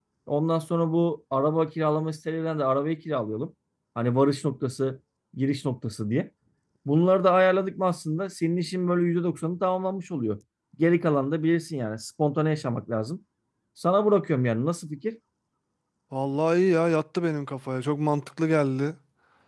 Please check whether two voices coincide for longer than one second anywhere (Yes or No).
No